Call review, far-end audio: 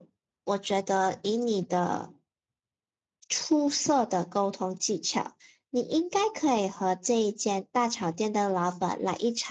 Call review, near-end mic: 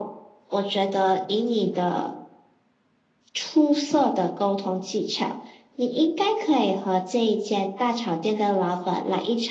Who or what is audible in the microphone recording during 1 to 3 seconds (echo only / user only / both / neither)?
echo only